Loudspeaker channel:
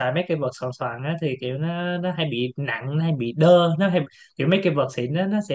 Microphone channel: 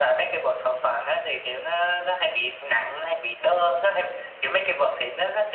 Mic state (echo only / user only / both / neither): echo only